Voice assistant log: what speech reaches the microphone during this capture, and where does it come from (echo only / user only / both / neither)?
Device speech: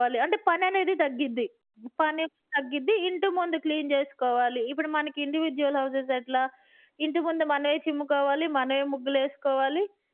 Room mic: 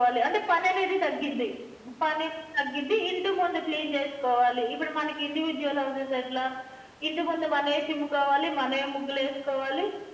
echo only